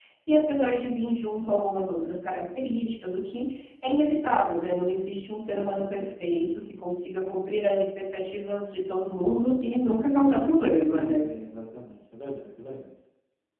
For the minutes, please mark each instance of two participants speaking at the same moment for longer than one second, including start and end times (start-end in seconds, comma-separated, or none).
none